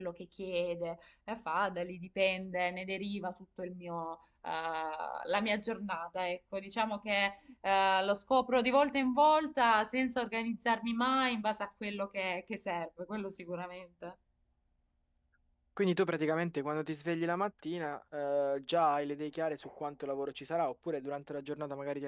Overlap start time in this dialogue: none

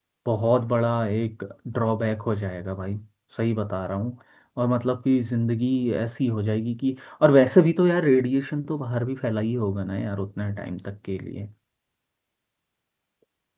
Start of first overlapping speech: none

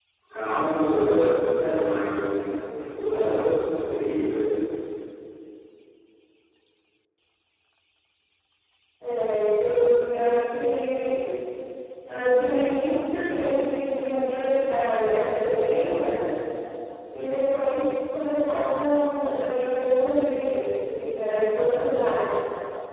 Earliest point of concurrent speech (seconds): none

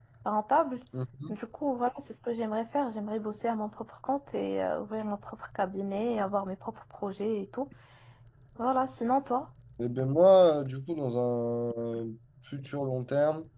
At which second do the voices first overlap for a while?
none

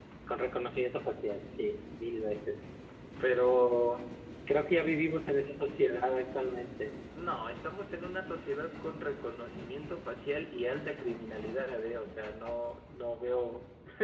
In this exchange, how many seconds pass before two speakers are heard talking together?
none

